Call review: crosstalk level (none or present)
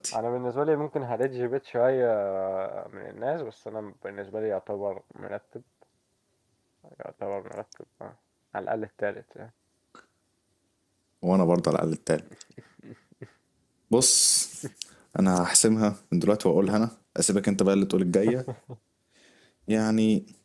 none